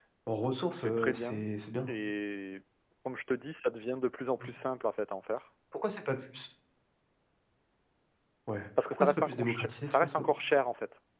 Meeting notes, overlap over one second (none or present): present